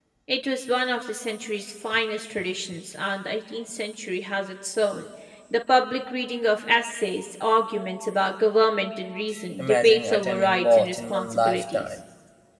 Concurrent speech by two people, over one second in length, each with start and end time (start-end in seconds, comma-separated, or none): 9.6-11.9